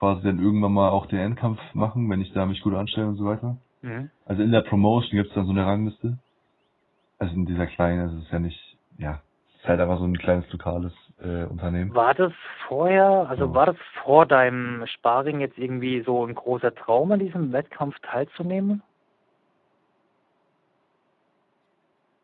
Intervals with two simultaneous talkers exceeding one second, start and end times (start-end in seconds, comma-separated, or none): none